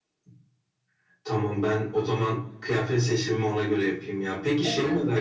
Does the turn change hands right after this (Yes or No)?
No